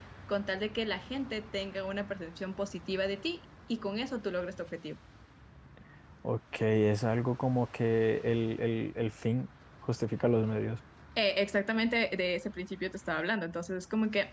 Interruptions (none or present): none